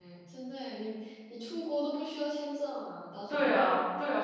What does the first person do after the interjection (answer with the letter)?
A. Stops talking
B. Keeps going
A